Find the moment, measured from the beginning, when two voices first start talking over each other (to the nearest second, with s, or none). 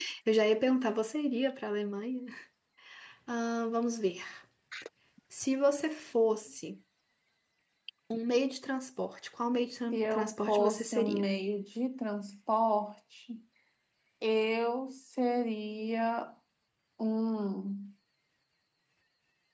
10 s